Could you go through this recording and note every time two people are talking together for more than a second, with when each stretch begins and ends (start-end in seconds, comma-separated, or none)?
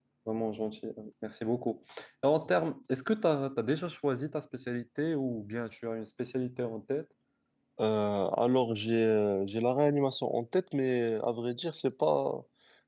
none